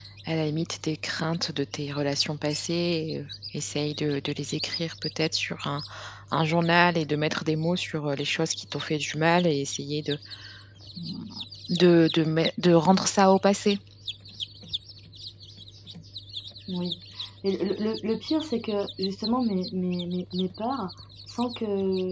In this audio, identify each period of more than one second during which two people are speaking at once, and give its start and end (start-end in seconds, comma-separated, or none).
none